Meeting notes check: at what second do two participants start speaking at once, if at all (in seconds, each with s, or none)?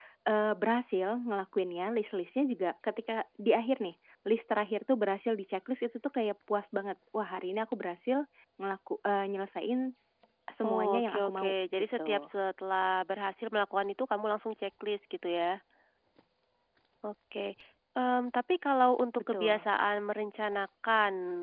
10.7 s